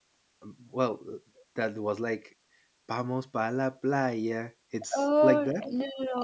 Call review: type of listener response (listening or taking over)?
taking over